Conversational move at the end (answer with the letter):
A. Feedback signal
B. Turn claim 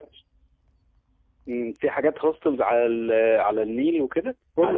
B